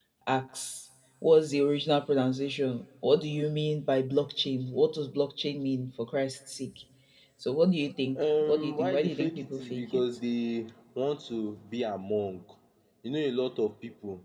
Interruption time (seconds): 8.2 s

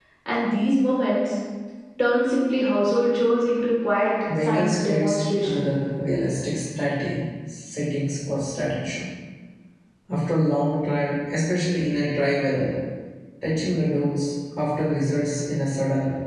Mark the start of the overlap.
4.3 s

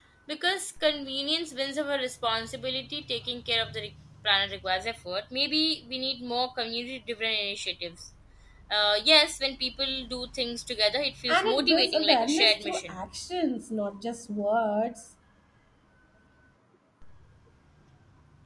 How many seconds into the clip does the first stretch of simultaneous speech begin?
11.3 s

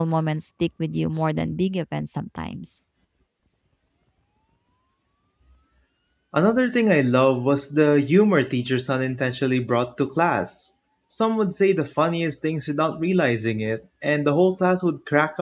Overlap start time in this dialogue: none

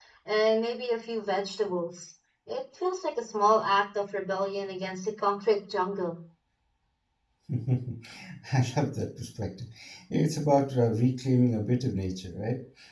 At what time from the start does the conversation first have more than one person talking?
none

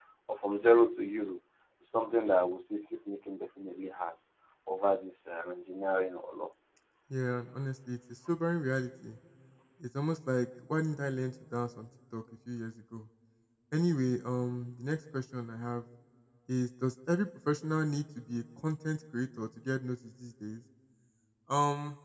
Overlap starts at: none

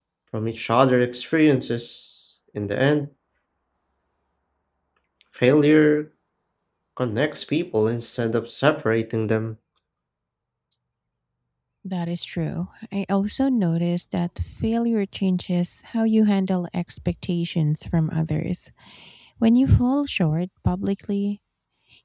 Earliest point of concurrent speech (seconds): none

